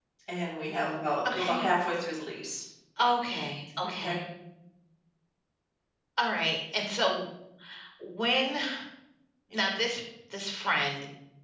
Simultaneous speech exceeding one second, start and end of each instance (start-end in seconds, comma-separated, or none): none